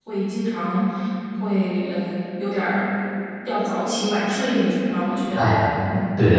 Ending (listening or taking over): taking over